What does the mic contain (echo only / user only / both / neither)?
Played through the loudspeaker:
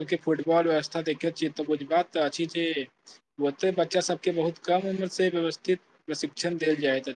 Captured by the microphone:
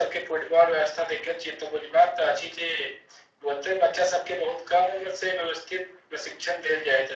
echo only